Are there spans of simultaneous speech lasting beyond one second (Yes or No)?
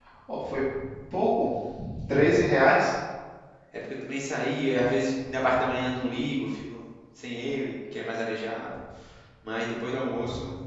No